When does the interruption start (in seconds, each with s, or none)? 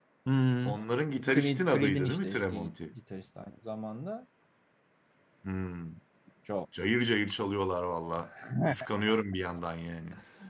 1.3 s